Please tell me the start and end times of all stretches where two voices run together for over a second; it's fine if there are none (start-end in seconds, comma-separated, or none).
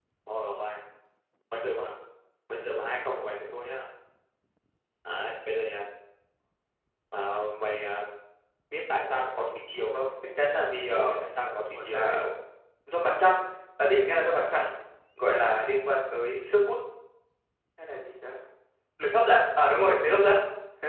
none